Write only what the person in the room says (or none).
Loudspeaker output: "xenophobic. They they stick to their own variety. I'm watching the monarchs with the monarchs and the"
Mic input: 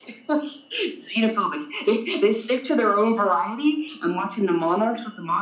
none